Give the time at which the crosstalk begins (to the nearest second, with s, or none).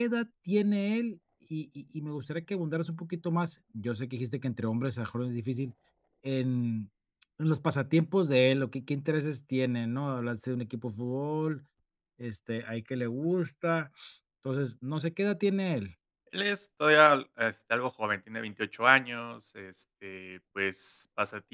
none